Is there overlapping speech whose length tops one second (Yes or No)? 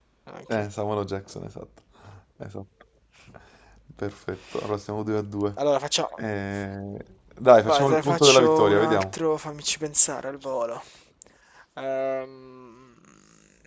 Yes